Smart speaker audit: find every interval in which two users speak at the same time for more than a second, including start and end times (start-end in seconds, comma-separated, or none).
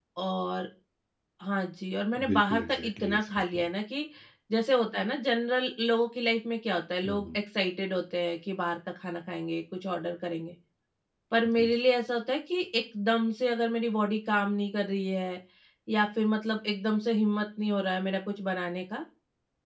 2.3-3.6